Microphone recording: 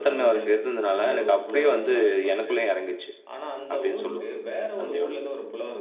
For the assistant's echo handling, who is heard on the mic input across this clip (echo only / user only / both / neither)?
both